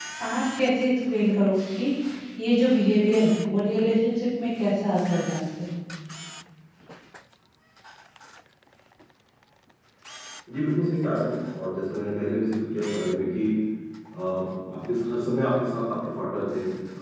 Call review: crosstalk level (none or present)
none